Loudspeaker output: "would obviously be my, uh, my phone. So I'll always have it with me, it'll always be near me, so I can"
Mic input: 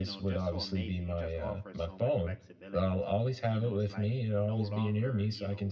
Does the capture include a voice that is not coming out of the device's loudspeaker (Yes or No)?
Yes